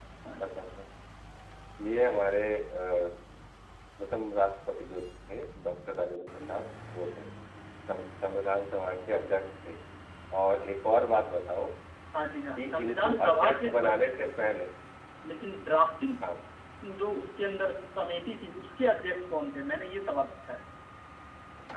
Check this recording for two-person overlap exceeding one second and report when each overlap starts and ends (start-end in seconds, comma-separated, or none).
12.6-14.1